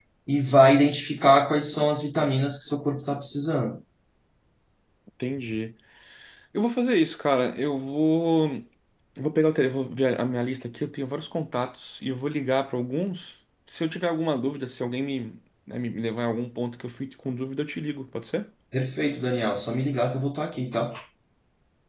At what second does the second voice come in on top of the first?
none

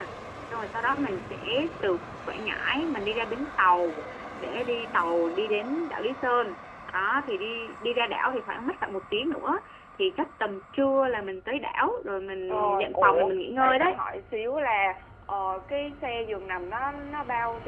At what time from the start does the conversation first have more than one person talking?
12.5 s

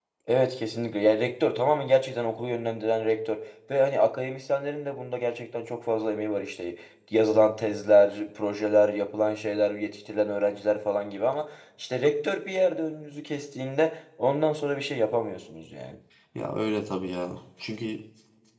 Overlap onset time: none

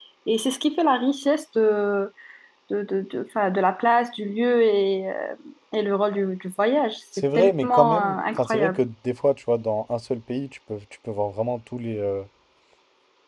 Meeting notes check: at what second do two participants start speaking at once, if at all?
7.4 s

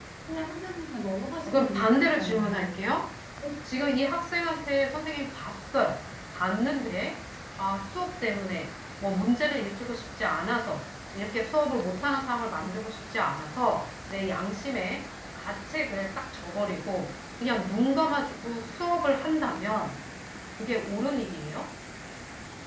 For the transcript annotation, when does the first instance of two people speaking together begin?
1.5 s

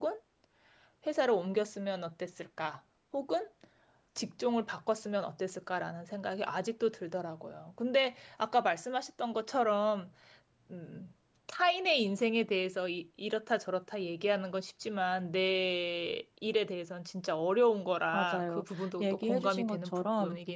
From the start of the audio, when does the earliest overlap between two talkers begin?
18.1 s

